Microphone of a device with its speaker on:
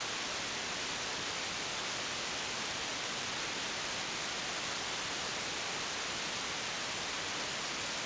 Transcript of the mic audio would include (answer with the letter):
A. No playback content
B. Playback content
A